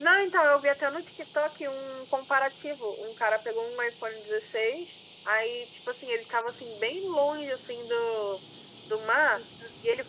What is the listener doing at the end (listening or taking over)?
listening